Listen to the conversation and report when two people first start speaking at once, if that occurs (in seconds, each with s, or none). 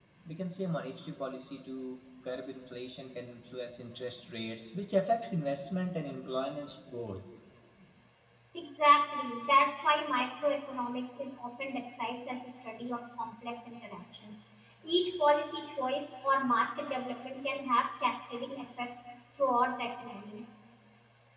none